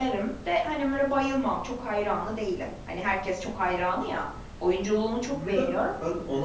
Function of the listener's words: taking over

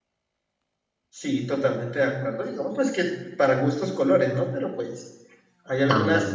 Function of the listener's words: listening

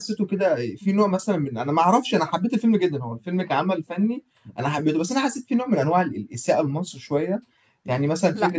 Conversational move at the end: listening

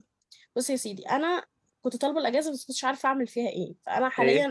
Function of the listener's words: listening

